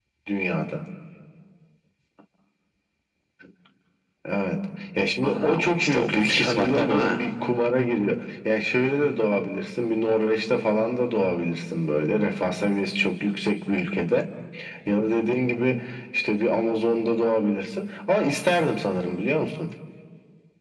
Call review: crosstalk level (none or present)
present